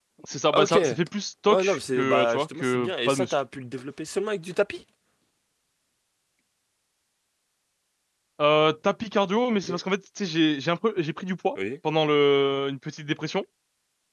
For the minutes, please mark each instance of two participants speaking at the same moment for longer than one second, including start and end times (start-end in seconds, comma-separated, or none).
1.5-3.4